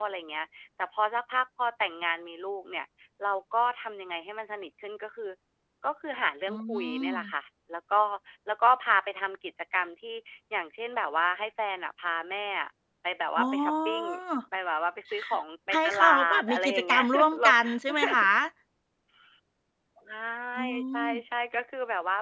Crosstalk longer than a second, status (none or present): present